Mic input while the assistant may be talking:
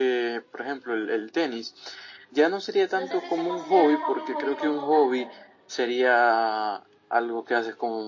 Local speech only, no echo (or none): No sé si se considera un hobby, hobby como tal, pero